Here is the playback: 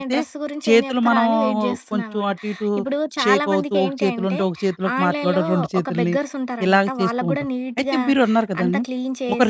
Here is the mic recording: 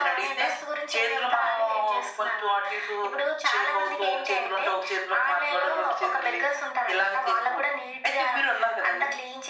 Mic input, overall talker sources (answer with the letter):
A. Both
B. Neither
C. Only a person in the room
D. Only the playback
D